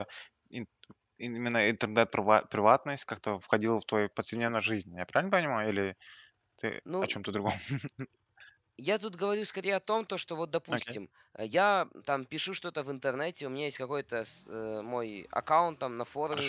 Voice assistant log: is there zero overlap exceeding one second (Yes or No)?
Yes